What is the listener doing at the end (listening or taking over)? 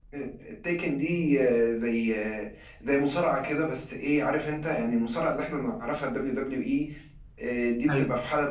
listening